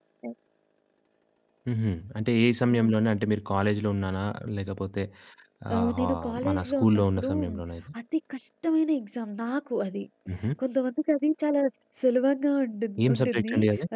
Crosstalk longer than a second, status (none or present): present